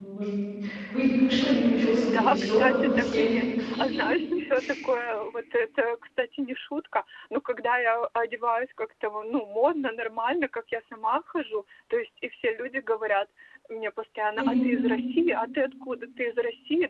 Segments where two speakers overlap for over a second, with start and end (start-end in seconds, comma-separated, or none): 2.0-3.3